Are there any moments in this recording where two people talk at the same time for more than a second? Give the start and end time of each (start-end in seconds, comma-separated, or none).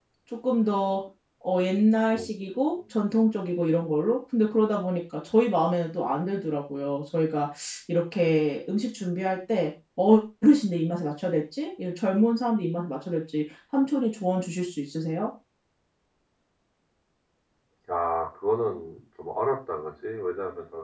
none